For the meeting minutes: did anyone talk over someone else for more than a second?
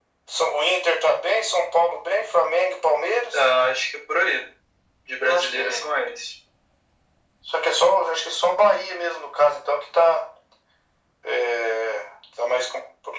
No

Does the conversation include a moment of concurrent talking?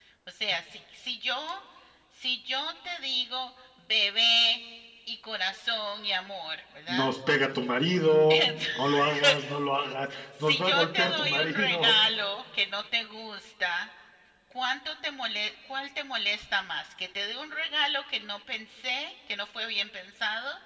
Yes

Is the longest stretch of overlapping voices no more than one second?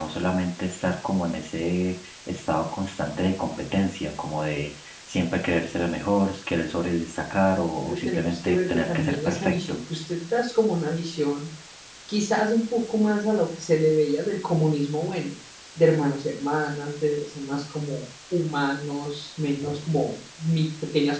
No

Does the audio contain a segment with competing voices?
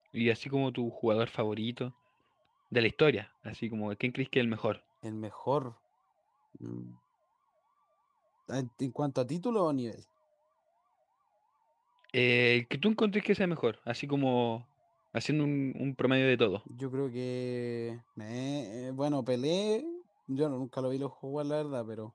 No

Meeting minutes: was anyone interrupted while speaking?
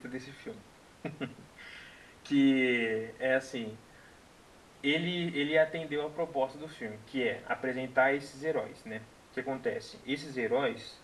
No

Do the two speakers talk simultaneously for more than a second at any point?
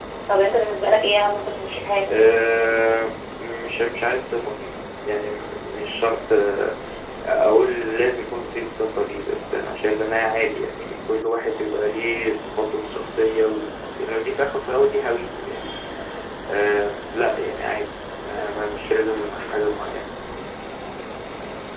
No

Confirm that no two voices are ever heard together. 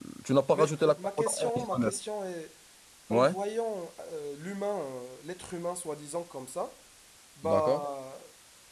No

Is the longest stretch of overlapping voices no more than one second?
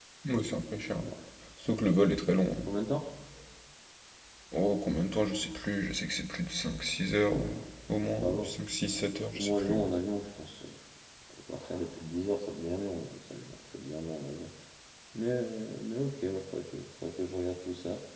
Yes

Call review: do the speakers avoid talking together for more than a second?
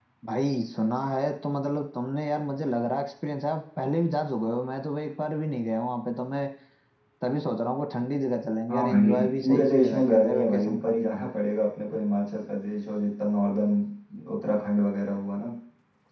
No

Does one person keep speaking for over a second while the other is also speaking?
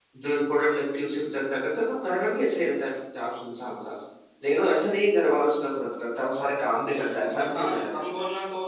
Yes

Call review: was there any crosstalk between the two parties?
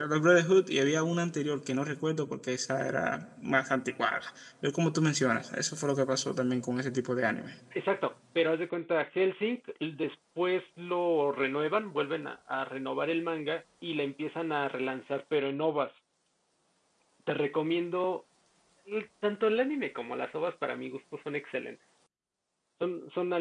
No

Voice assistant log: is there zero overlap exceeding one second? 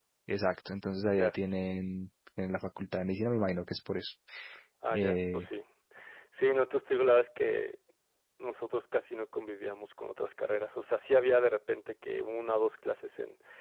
Yes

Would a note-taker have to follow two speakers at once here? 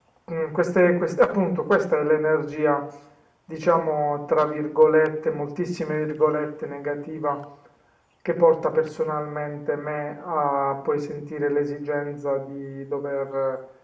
No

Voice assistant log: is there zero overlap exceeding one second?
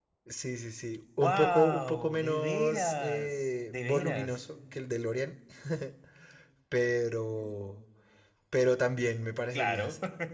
No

